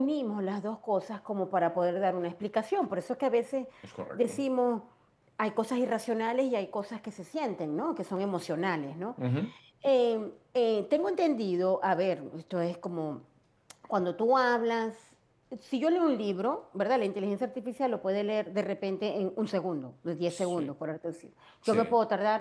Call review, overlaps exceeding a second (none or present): none